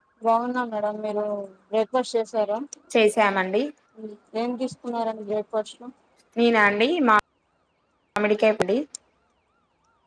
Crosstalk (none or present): none